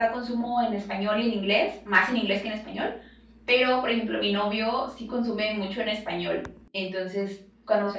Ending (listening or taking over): listening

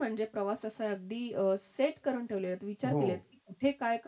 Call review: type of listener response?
listening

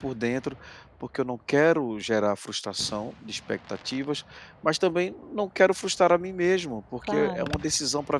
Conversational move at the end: listening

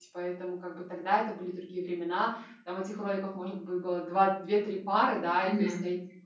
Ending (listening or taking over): listening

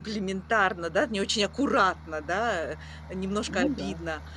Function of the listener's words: listening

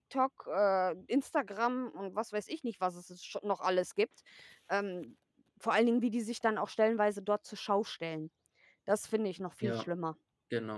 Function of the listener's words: taking over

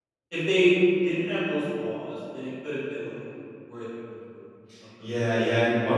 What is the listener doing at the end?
taking over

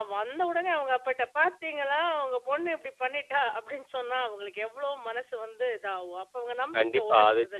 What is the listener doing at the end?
taking over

